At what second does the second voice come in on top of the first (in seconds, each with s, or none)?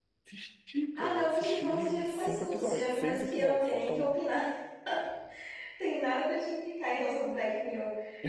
1.0 s